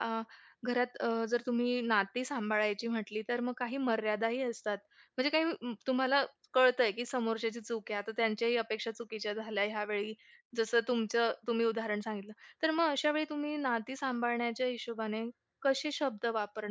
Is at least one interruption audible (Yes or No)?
No